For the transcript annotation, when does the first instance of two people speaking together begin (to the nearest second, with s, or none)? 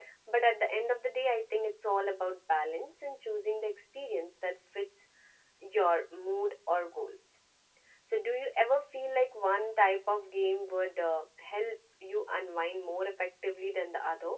none